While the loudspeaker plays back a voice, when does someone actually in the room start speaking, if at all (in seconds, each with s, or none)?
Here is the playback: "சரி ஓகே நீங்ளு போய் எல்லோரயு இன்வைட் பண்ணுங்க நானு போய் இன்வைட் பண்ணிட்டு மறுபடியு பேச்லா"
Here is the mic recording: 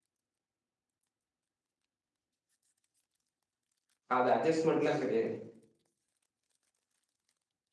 4.2 s